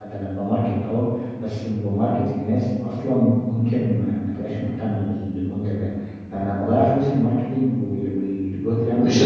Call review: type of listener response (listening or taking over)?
taking over